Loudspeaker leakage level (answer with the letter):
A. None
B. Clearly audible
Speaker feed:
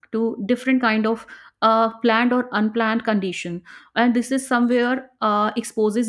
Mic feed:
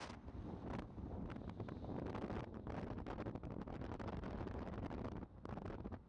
A